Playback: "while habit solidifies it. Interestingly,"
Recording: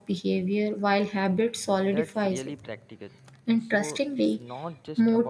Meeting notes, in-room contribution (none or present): present